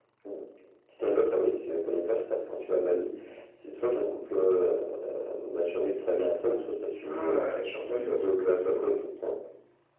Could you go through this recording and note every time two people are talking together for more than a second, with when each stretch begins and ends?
7.1-9.0

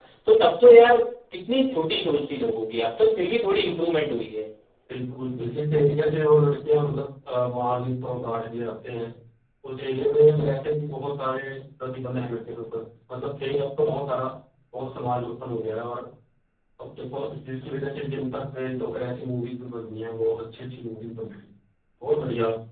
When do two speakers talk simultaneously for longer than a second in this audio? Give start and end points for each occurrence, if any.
none

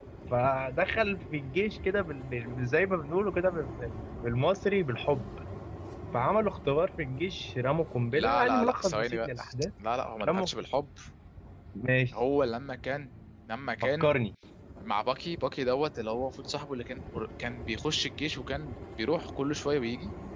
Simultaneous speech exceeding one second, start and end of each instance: 8.1-9.3

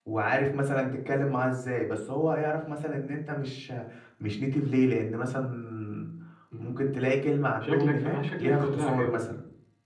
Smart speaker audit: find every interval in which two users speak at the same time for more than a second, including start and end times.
7.6-9.4

